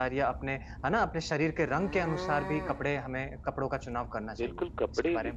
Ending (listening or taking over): taking over